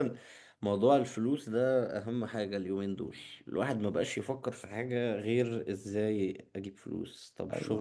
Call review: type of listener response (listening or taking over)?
listening